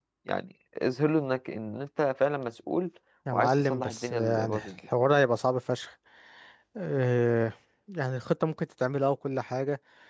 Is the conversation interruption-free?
No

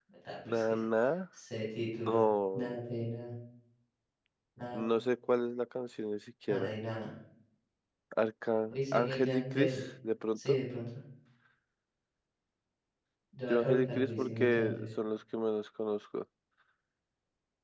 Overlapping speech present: Yes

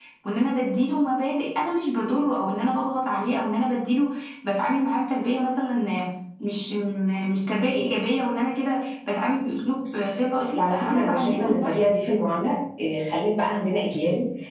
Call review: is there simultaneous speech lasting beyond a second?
Yes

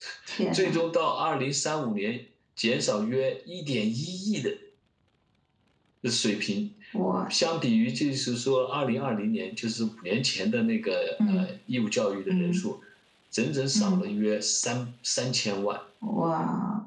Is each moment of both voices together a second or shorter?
Yes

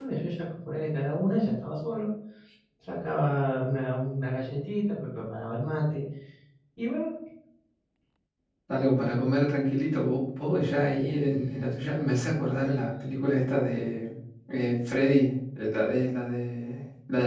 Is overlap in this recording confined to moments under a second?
Yes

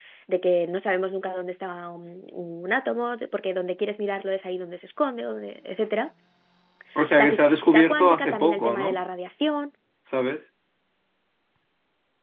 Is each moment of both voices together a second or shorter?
No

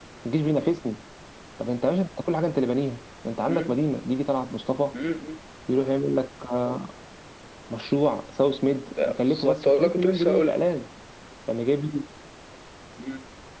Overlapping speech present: Yes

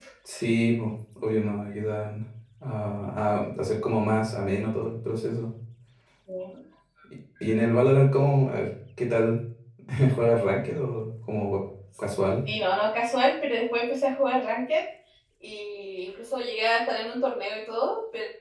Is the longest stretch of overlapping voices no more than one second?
Yes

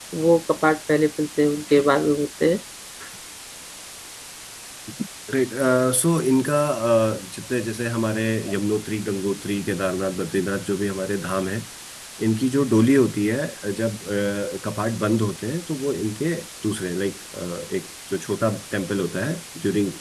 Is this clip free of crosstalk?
Yes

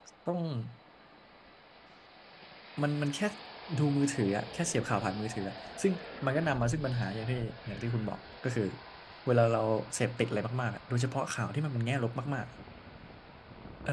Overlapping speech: No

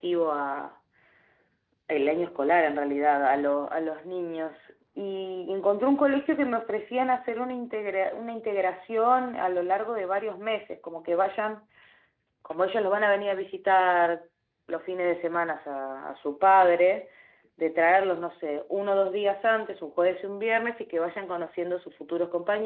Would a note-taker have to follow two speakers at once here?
No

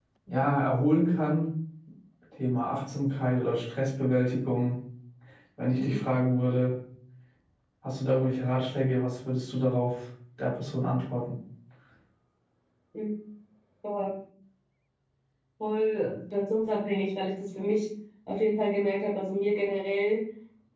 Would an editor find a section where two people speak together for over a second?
No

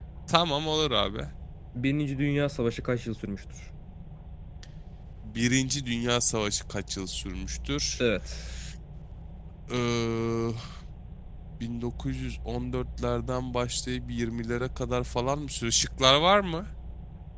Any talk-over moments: No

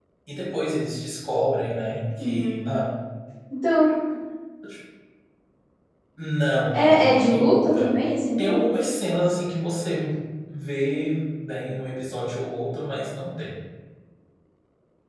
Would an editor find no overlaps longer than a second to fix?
No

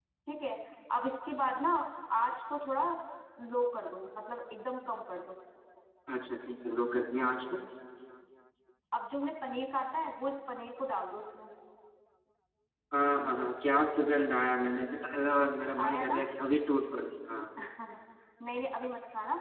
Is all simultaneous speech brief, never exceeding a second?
Yes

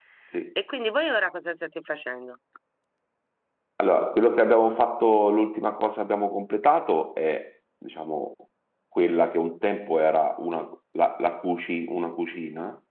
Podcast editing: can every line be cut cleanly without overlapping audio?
Yes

